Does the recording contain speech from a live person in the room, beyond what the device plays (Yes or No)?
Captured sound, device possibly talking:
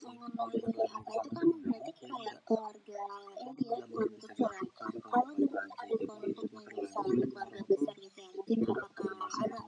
No